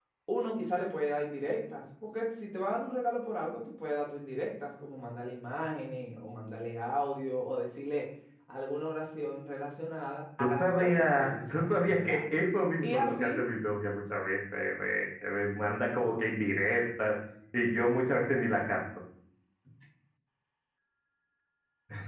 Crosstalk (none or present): present